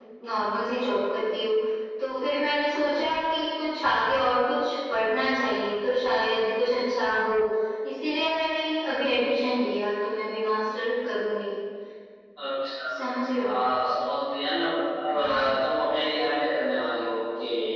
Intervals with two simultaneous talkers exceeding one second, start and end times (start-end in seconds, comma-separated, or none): none